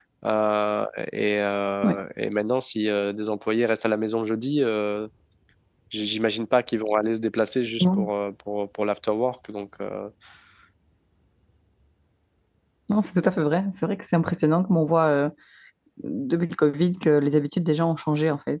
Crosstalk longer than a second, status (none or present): none